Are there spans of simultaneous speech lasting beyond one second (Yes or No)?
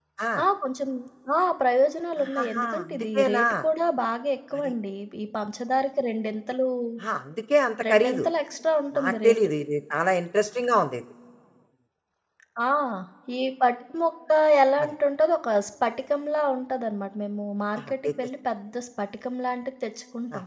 Yes